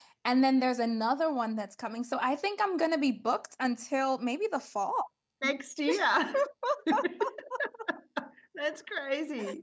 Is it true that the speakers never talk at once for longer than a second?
Yes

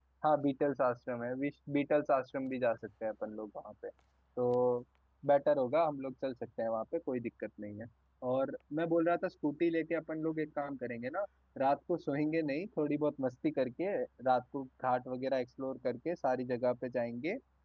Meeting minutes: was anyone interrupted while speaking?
No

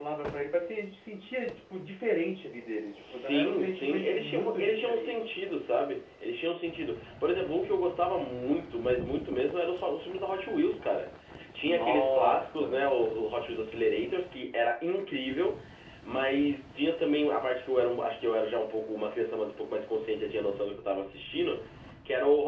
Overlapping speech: Yes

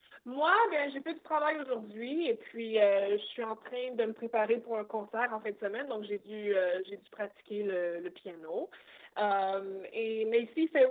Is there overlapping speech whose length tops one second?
No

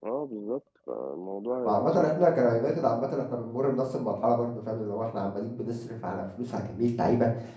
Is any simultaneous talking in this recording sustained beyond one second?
No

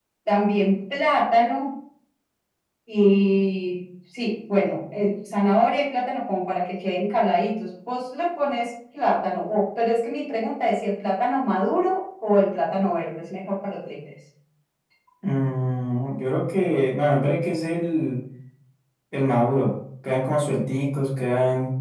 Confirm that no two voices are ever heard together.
Yes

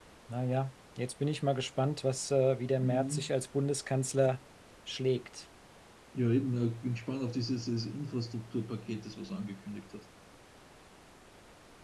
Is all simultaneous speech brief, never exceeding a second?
Yes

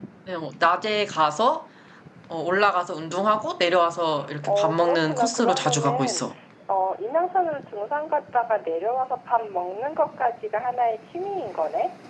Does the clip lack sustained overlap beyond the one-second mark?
No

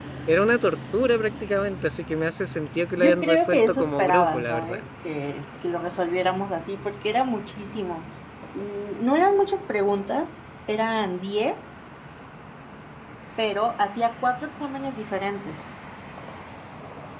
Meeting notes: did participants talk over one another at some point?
Yes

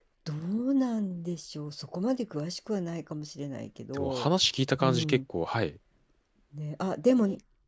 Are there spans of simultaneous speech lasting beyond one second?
No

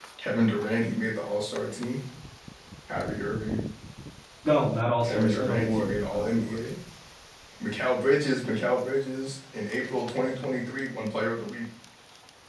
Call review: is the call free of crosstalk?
No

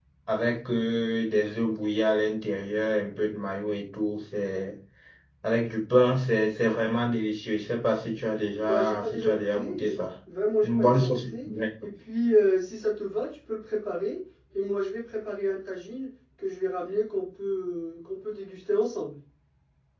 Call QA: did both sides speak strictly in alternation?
No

